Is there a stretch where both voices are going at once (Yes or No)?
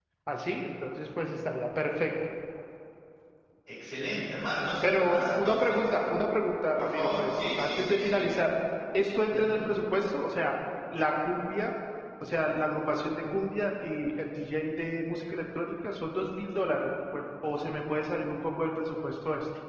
Yes